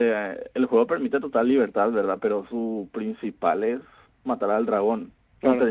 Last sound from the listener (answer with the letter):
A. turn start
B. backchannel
B